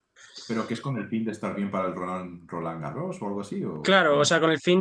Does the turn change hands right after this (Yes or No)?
Yes